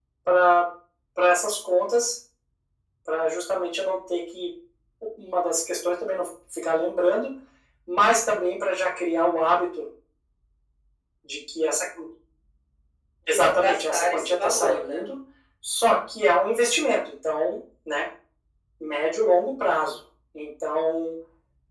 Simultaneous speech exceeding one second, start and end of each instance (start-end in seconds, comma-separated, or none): 13.3-15.0